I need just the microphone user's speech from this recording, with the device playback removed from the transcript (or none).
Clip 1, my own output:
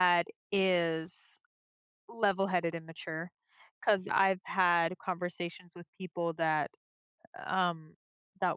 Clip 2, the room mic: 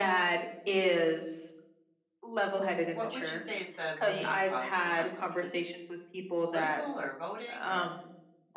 what would you say is the main cause of the conflict? Was it political or voting or